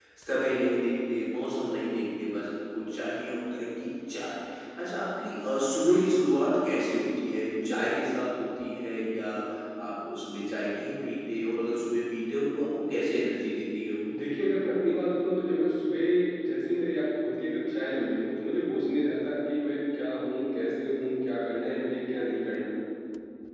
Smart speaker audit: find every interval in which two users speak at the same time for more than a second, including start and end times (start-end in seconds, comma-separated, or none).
none